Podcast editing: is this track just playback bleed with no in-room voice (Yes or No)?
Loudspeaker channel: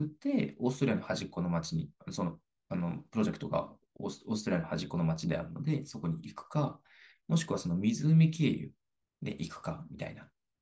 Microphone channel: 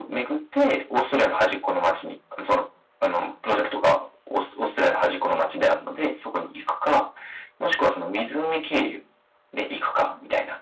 Yes